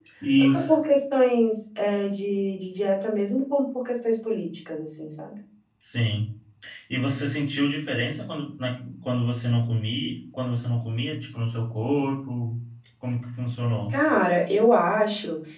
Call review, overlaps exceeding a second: none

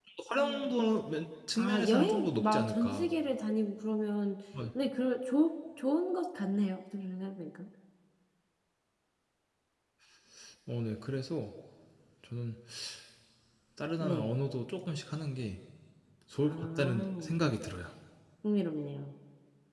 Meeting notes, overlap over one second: present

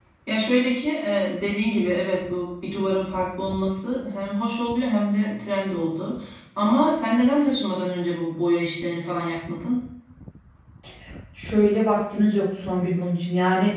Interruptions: none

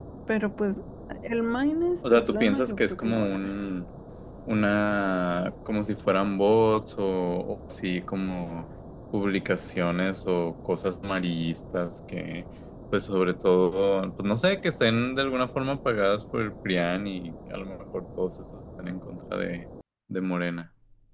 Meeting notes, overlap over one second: present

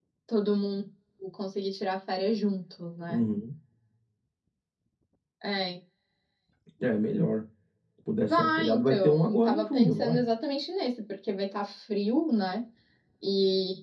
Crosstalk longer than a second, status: present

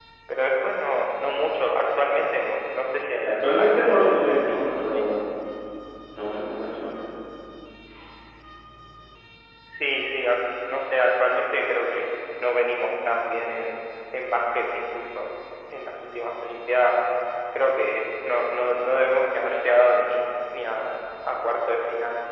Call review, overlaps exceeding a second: present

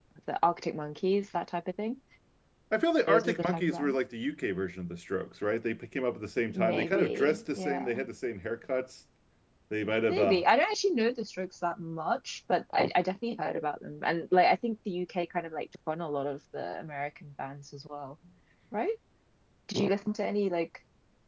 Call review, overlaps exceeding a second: present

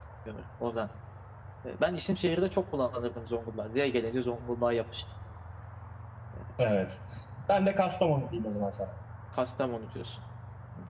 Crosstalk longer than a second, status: none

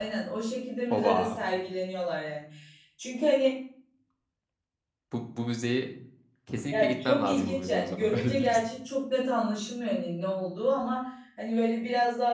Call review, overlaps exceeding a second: present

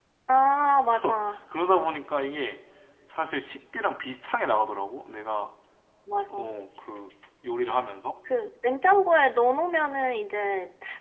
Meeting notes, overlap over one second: none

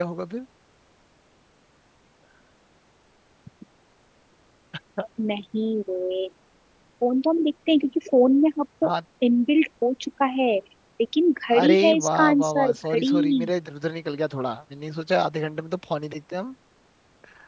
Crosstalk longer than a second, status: present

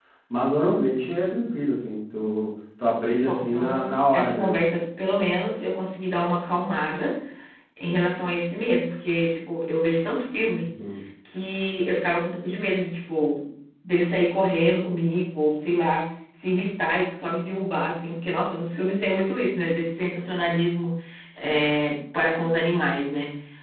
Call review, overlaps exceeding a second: present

